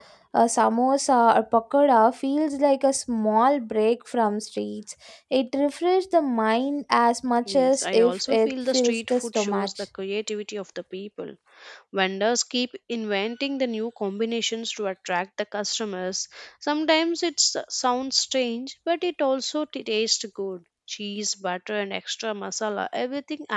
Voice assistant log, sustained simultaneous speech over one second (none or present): present